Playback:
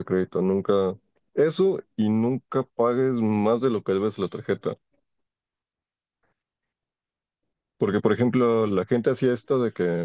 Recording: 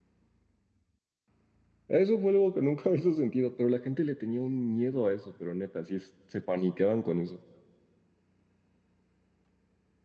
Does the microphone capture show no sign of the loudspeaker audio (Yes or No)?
Yes